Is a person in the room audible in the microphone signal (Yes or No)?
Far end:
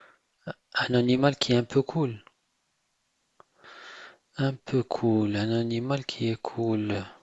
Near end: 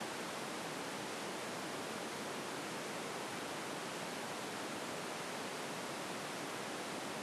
No